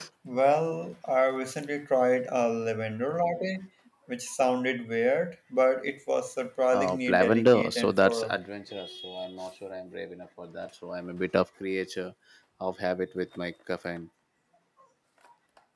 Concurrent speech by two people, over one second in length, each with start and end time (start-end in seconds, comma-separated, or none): 6.7-8.4